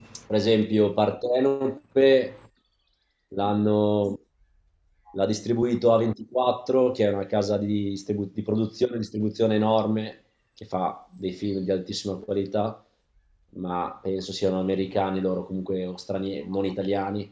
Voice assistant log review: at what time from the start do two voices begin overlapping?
none

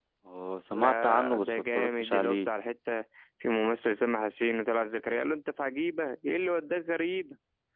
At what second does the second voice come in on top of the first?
0.7 s

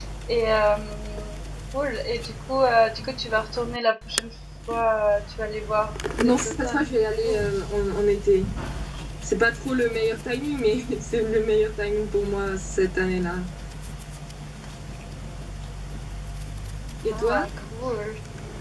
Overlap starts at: 6.2 s

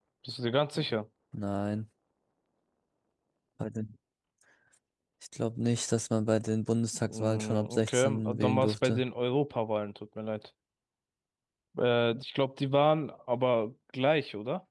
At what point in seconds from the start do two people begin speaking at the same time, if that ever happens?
6.9 s

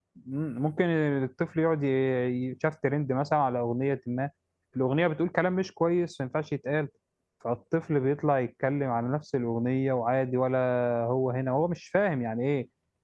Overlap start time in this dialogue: none

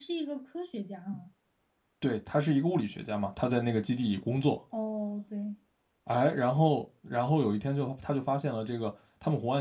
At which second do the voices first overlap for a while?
none

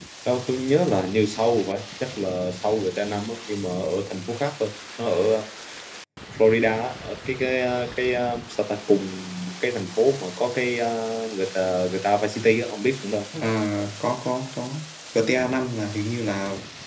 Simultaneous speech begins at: none

